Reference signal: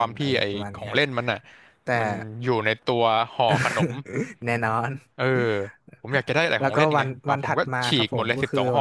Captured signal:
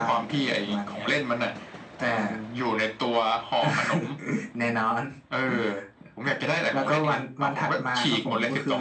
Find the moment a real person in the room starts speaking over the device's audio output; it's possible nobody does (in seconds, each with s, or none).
none